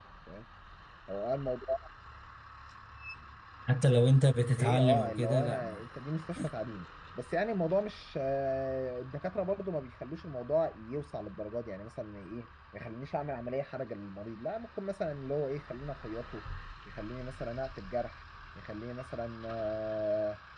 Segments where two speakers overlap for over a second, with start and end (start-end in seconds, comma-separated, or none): 4.6-5.9